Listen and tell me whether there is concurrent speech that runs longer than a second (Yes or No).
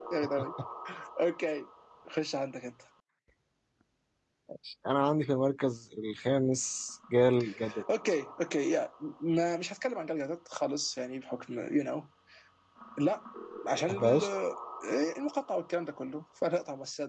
No